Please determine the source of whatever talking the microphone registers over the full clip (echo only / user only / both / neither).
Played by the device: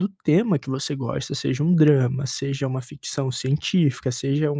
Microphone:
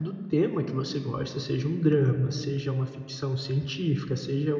echo only